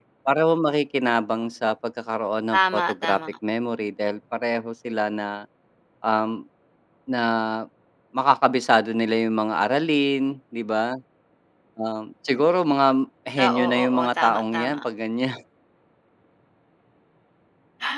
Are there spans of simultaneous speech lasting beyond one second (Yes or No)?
Yes